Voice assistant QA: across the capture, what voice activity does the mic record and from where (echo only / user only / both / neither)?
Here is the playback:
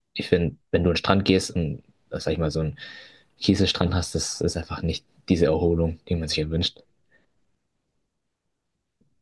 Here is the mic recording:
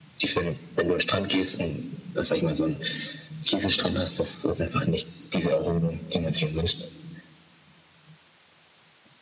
echo only